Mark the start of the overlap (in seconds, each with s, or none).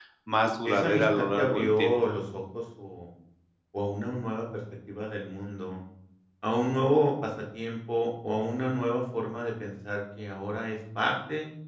0.7 s